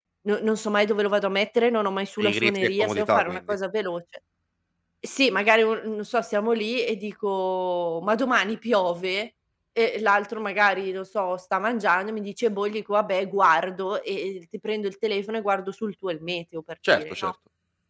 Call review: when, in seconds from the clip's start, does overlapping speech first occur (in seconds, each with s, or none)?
2.2 s